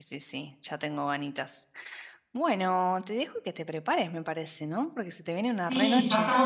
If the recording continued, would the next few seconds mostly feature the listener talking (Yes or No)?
Yes